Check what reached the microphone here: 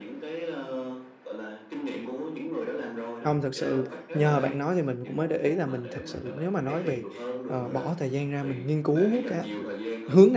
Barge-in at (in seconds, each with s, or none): 3.2 s